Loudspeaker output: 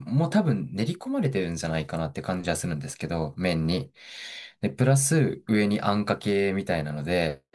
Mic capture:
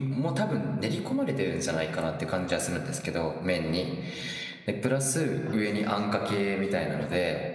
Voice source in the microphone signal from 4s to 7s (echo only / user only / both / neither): both